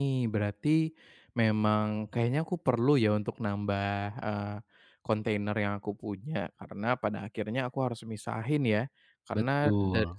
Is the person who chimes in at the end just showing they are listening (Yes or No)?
Yes